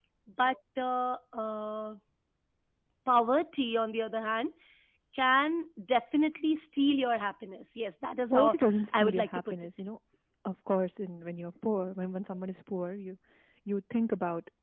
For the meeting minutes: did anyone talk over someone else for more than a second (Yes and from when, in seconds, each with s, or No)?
Yes, from 8.3 s